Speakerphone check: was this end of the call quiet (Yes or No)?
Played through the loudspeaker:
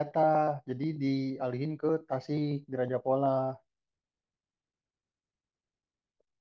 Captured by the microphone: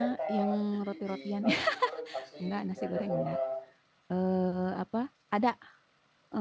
No